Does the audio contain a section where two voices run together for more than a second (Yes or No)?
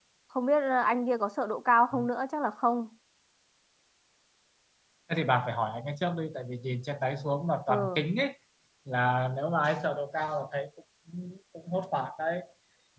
No